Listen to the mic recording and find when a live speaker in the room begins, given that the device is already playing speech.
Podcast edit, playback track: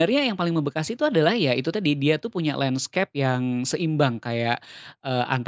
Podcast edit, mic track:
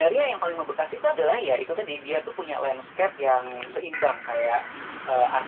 none

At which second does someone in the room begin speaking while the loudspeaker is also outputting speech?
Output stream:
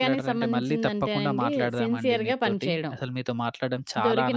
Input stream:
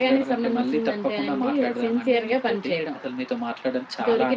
none

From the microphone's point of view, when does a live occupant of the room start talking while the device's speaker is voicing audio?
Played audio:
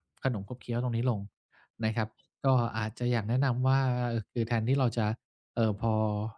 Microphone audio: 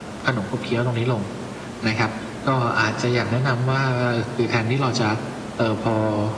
none

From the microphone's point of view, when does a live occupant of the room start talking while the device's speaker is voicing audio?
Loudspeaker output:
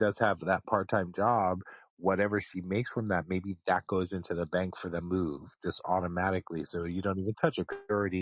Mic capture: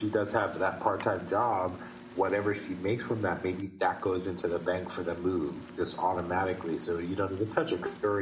none

